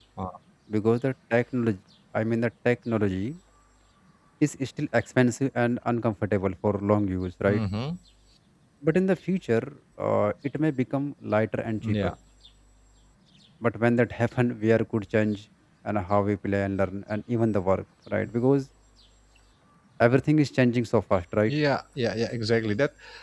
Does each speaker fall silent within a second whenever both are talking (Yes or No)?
Yes